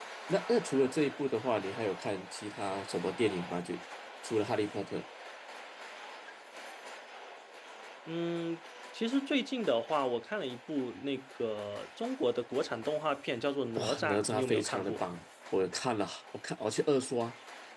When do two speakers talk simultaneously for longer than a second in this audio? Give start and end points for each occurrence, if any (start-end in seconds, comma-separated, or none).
13.8-15.0